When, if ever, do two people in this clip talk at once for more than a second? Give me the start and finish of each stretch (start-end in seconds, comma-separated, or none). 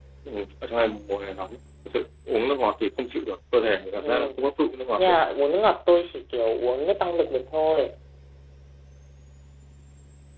none